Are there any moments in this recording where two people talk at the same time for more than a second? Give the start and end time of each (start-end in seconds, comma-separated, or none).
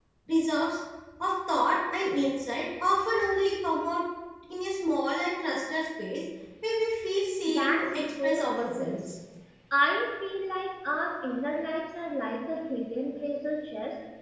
7.5-9.0